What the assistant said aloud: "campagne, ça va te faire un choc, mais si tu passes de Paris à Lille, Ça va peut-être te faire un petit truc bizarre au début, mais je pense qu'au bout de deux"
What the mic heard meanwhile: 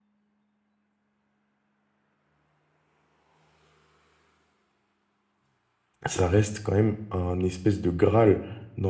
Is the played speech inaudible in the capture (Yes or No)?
Yes